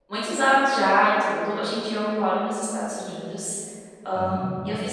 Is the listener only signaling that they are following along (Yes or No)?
Yes